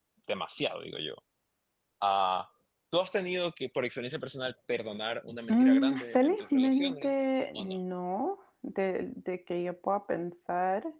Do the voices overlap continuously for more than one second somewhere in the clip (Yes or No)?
Yes